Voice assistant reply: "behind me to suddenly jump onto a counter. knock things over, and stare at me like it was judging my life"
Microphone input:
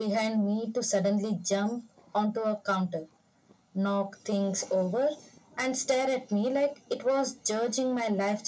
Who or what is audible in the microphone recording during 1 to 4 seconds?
echo only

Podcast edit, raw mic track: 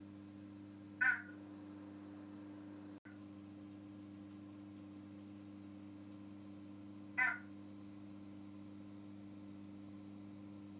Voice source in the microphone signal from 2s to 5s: neither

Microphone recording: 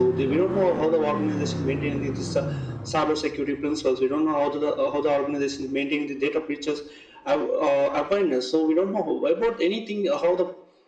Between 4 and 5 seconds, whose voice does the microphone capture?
echo only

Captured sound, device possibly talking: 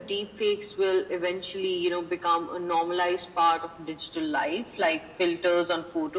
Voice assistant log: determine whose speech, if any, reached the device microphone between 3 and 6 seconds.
echo only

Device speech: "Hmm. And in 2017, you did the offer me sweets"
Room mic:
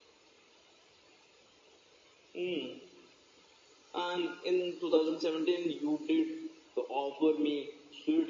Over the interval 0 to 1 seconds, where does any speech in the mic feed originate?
neither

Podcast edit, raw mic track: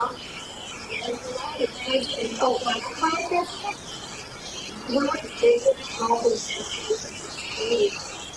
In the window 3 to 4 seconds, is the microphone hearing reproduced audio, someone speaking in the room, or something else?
echo only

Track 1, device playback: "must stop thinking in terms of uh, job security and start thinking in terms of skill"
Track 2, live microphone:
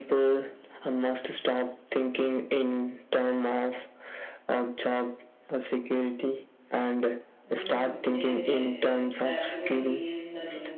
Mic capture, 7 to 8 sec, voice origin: both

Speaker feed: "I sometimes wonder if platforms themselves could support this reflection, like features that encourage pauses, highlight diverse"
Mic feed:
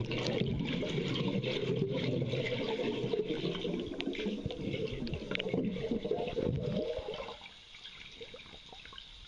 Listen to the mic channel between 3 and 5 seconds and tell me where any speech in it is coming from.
neither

